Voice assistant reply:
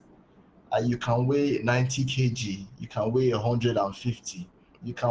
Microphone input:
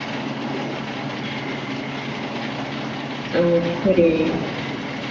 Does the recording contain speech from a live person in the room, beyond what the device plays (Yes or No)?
Yes